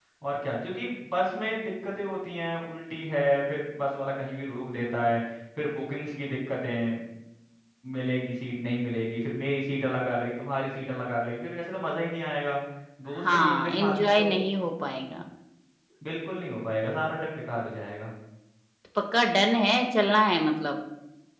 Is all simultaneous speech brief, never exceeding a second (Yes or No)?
No